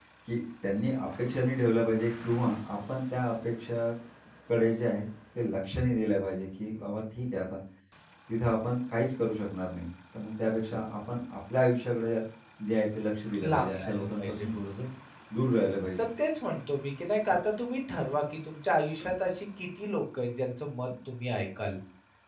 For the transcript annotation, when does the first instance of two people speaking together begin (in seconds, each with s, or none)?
13.4 s